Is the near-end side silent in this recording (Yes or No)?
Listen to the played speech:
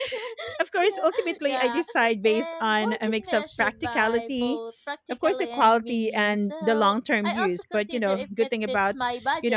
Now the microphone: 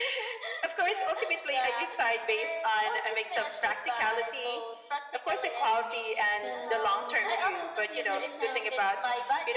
No